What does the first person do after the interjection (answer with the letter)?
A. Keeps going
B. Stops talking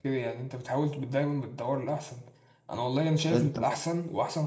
A